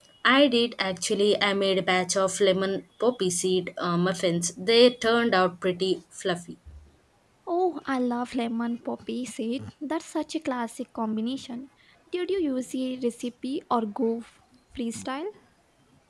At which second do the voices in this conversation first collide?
none

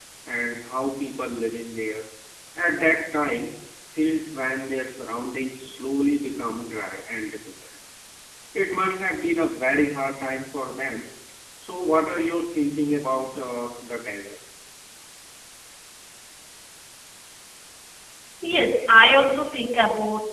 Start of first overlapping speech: none

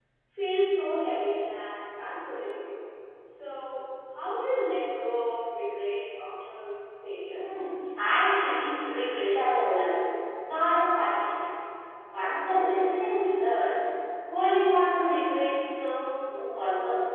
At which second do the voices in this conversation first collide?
none

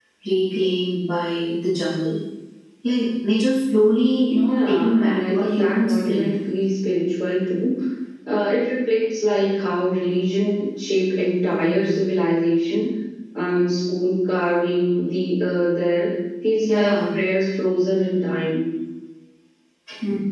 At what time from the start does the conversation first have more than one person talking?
4.5 s

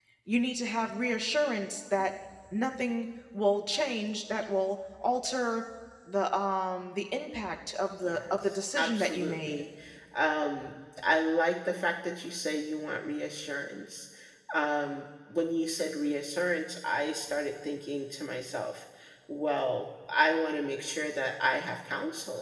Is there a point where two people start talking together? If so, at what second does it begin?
8.0 s

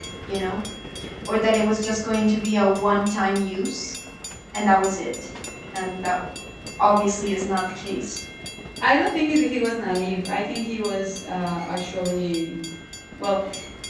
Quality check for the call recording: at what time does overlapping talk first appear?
none

